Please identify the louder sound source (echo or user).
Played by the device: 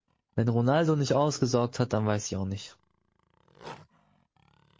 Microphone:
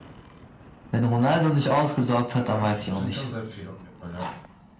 echo